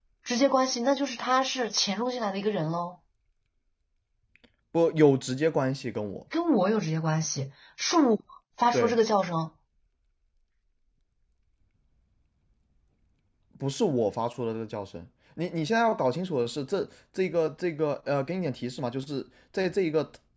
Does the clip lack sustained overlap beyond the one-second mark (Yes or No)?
Yes